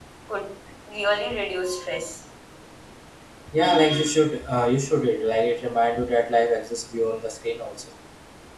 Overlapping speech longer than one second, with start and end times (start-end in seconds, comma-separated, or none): none